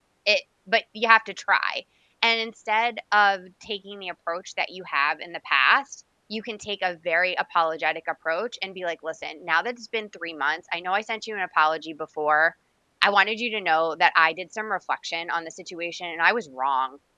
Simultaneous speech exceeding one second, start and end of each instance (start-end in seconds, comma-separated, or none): none